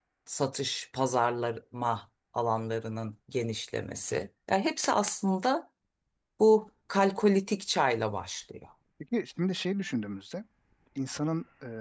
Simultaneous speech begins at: none

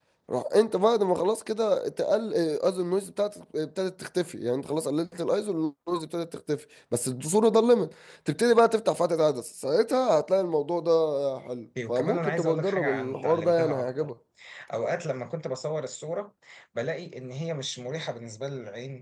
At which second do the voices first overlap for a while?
11.9 s

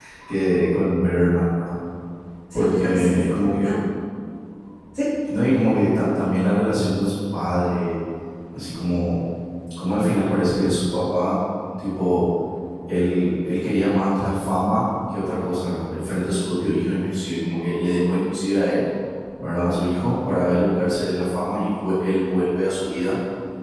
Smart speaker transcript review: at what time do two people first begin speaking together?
2.5 s

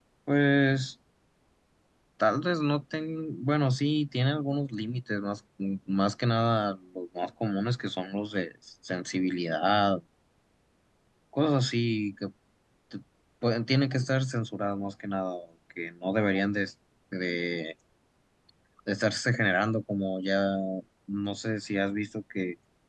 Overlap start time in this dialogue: none

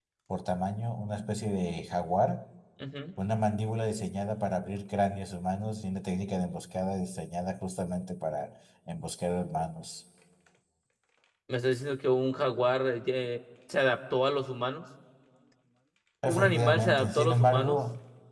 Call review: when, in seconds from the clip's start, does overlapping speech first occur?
16.3 s

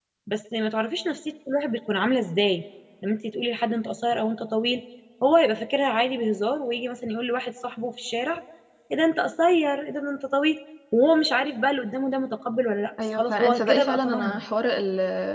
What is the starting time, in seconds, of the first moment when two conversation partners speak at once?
13.0 s

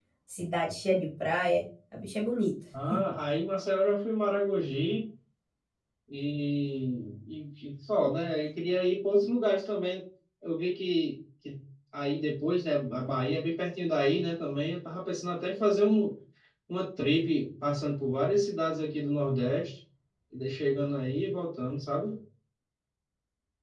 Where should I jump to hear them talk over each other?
none

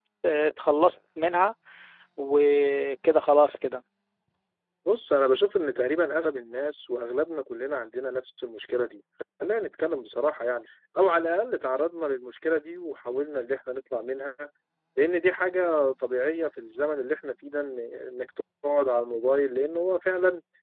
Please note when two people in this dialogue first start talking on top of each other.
none

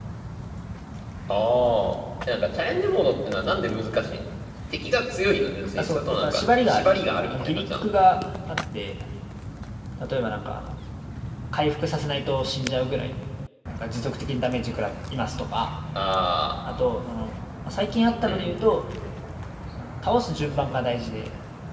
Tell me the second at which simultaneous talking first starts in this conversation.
5.8 s

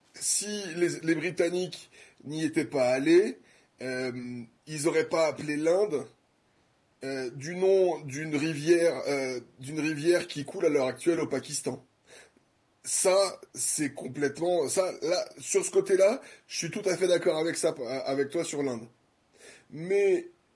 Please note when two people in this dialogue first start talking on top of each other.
none

